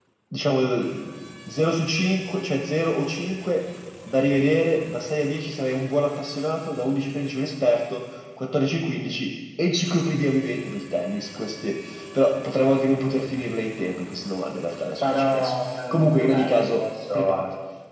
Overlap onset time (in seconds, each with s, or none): 15.0 s